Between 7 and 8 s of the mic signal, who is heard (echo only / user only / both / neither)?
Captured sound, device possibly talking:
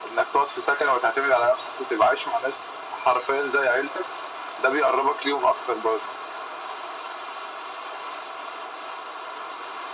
neither